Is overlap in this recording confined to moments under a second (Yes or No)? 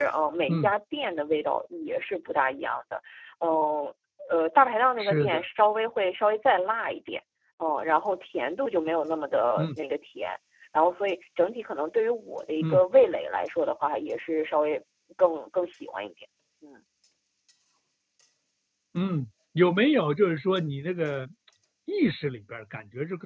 Yes